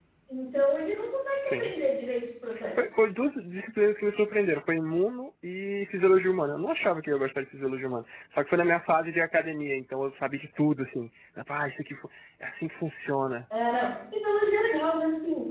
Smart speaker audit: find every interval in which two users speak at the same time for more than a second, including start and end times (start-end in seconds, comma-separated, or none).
none